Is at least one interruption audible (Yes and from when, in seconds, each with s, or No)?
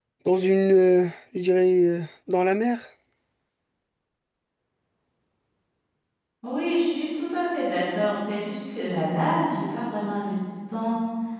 No